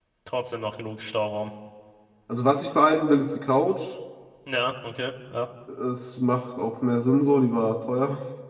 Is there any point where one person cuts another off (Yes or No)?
No